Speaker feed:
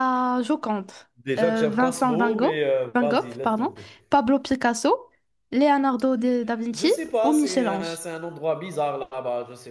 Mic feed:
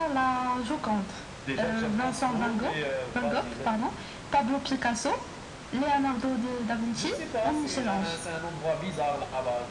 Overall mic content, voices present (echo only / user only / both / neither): echo only